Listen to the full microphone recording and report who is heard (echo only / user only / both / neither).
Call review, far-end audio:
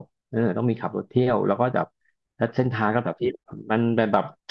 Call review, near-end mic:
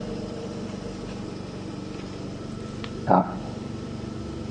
user only